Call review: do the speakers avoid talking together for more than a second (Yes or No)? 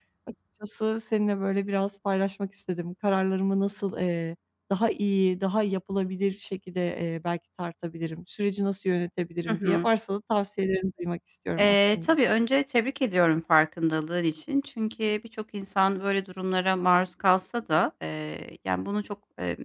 Yes